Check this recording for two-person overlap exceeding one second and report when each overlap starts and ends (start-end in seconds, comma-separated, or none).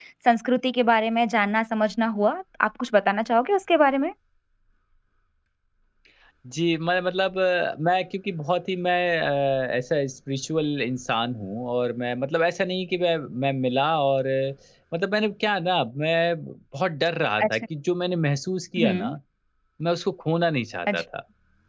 none